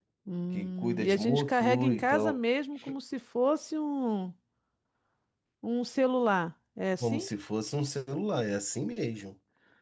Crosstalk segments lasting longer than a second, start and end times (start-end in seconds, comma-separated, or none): 0.5-2.4